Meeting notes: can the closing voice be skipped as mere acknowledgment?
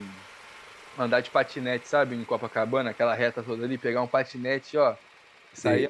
No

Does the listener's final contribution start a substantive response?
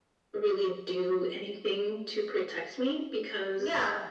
No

